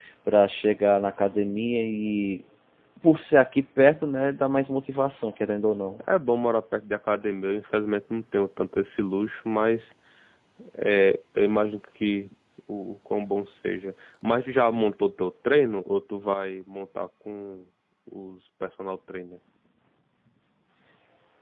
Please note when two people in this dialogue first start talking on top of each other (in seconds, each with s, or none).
none